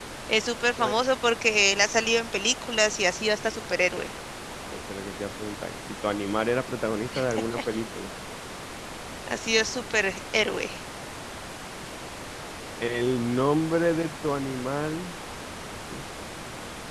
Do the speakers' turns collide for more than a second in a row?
No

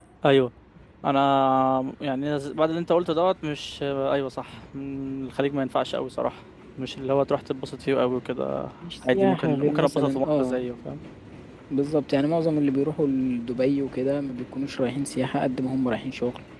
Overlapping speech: Yes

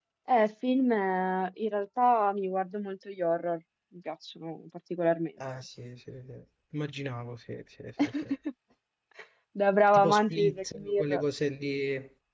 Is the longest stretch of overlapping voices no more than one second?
No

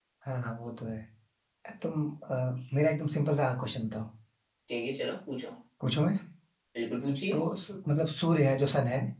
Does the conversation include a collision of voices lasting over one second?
No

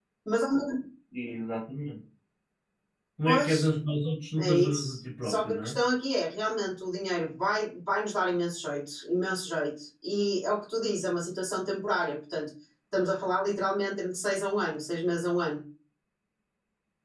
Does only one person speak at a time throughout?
No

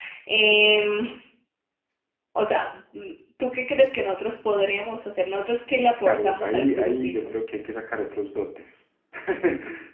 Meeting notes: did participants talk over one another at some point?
Yes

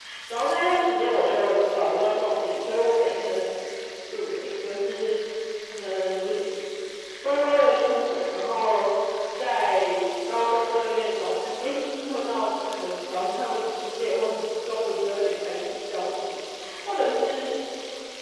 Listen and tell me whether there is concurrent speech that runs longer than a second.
No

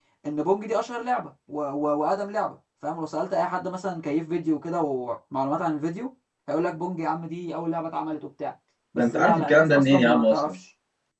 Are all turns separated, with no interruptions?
No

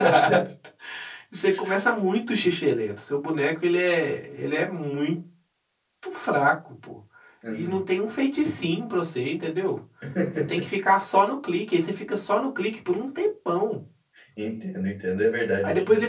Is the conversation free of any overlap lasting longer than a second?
Yes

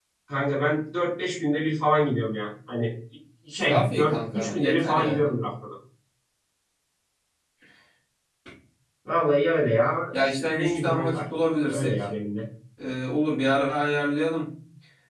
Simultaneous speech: Yes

